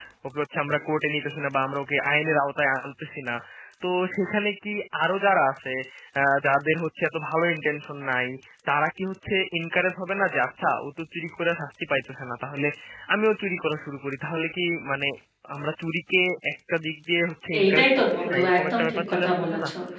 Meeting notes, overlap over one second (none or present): present